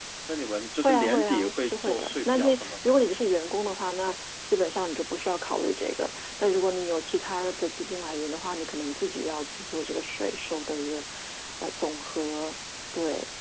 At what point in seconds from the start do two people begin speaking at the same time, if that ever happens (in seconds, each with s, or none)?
0.8 s